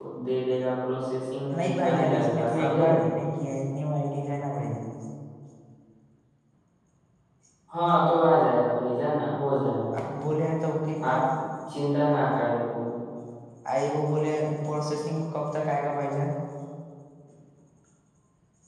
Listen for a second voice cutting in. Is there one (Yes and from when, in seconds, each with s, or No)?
Yes, from 1.5 s